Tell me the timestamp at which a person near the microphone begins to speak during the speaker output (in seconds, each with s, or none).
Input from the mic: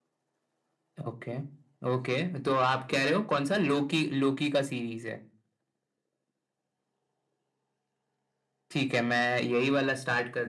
none